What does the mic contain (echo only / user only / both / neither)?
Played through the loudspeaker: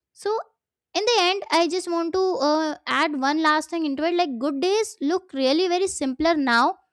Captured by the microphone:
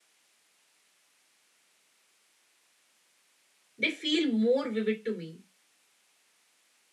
user only